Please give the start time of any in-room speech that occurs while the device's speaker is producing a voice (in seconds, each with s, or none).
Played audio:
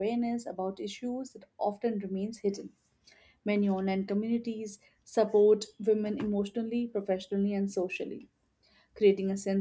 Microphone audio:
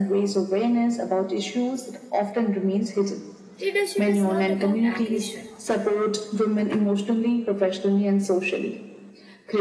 3.6 s